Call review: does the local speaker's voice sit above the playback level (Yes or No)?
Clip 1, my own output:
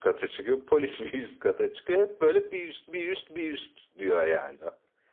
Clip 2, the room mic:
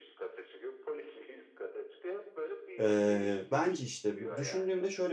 Yes